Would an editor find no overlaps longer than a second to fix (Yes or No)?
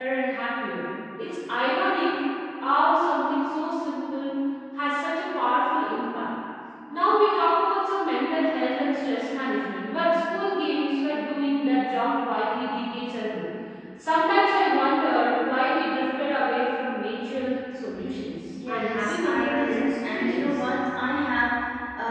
No